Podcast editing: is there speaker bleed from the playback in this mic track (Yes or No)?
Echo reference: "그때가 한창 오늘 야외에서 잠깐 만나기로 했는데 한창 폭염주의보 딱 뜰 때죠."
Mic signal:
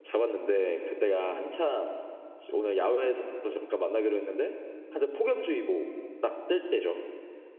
Yes